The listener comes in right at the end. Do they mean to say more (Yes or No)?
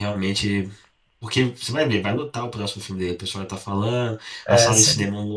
No